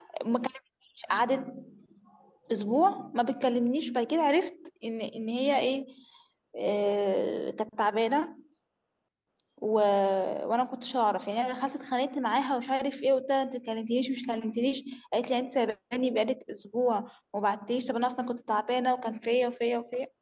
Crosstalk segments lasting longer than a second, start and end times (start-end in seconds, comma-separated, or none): none